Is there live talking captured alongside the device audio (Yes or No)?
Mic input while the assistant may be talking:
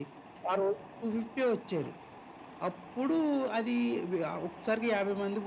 No